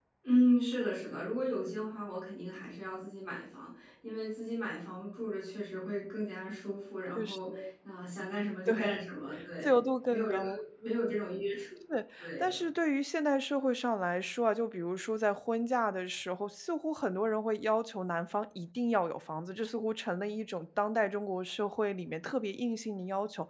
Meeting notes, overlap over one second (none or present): none